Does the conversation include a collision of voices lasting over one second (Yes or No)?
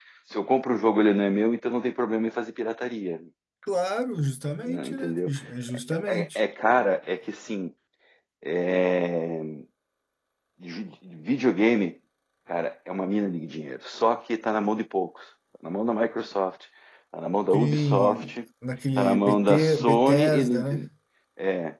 Yes